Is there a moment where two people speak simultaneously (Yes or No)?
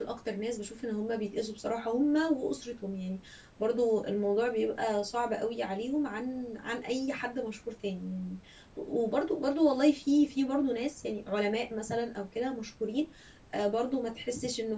No